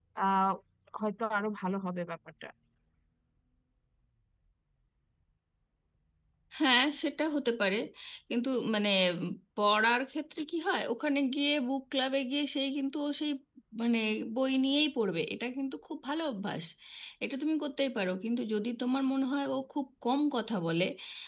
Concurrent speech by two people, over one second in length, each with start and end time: none

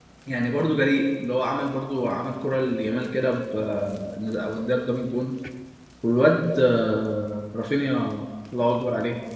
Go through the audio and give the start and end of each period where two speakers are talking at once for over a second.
none

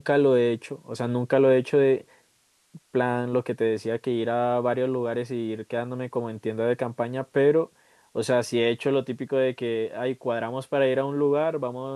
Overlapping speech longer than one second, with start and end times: none

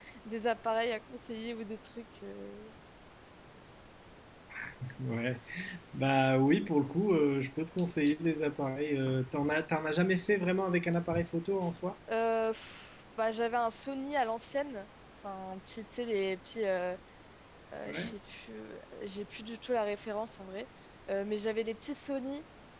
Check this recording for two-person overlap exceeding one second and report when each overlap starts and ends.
none

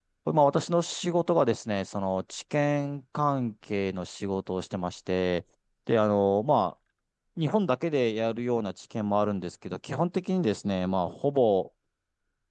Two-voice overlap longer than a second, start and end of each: none

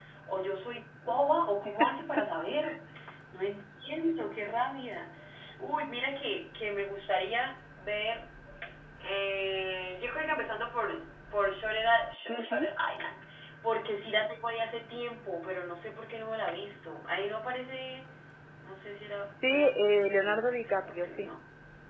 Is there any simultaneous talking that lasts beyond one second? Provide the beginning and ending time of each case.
19.3-21.3

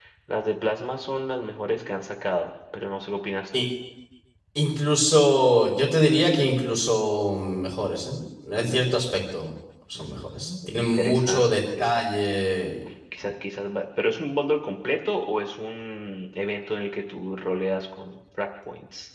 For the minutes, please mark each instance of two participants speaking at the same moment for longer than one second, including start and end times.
9.9-11.9

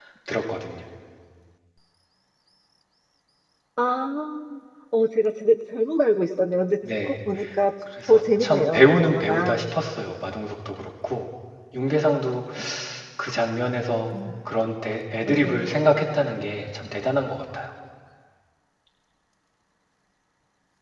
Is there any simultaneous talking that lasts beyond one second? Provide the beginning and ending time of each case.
8.1-9.6

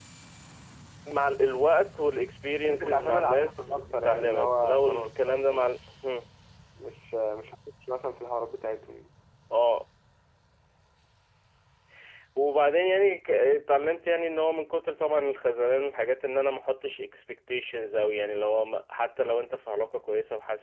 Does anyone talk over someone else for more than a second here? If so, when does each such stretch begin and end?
2.6-6.0

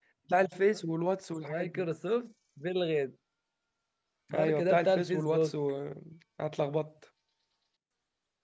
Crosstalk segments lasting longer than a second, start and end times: 4.3-5.5

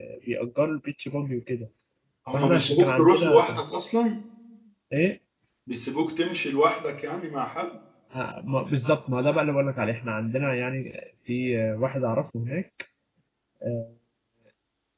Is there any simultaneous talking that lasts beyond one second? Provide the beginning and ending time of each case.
2.3-3.6

